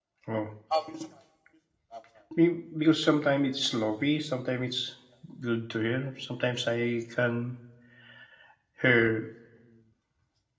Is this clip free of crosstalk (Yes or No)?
Yes